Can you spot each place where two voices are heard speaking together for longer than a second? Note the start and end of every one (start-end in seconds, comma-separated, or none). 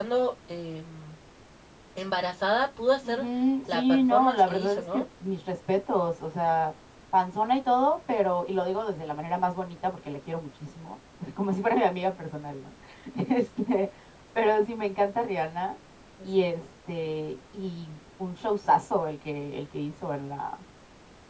3.7-5.0